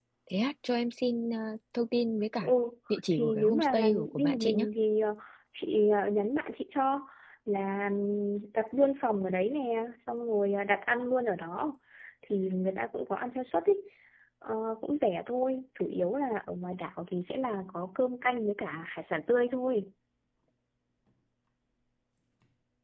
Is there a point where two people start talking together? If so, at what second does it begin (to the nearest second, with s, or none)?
3 s